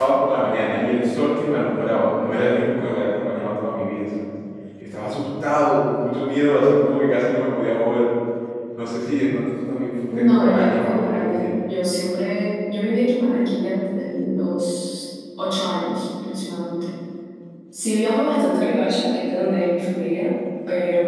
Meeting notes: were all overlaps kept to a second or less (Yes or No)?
No